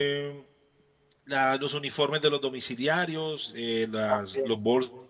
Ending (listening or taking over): listening